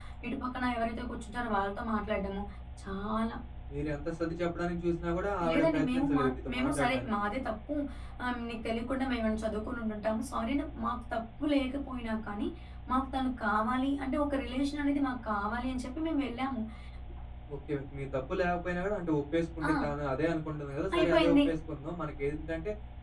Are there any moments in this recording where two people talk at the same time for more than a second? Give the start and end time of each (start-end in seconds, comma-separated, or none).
5.5-7.1